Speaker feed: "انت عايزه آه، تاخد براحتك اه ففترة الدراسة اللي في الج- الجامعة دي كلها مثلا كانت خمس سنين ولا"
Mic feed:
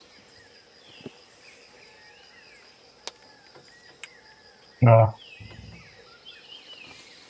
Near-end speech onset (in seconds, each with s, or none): 4.9 s